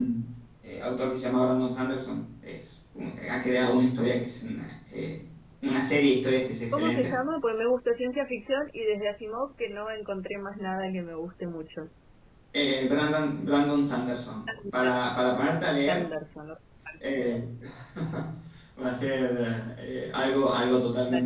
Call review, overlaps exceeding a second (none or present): none